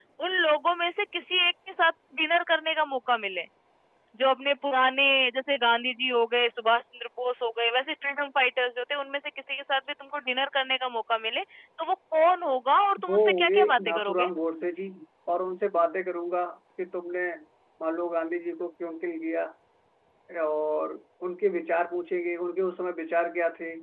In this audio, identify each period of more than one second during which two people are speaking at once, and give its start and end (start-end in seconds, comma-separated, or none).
13.1-14.3